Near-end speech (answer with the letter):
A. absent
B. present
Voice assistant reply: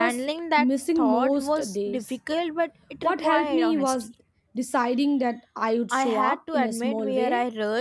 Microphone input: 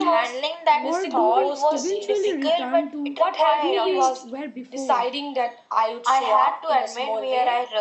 B